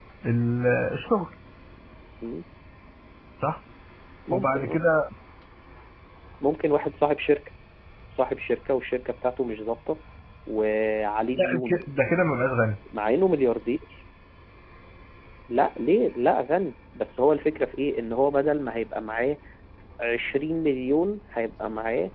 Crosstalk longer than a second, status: none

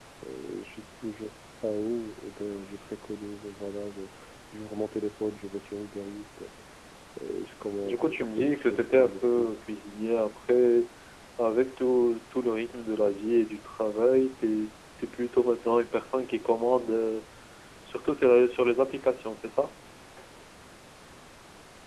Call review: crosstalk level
present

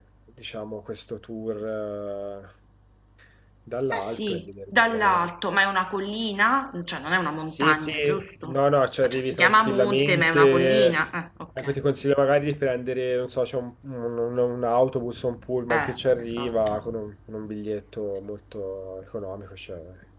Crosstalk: present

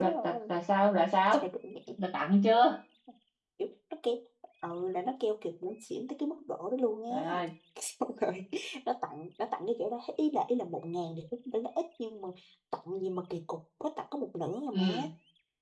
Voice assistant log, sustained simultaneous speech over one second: none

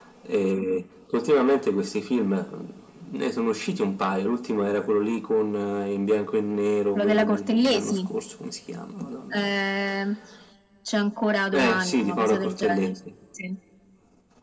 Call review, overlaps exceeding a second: present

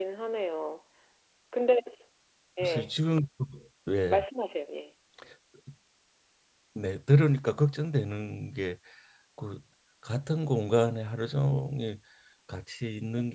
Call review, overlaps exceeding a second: none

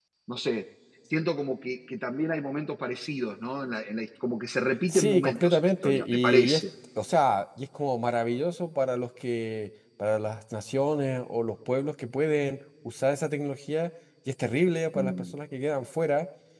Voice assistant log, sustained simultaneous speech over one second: present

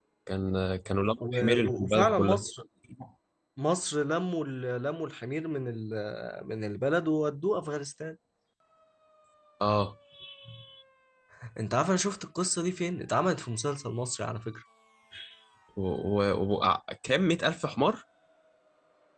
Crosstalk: present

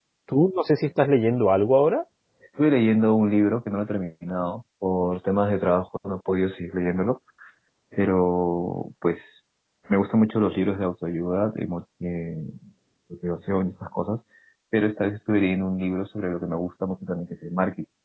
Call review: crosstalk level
none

